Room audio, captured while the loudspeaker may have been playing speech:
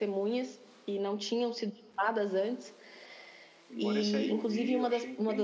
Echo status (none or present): present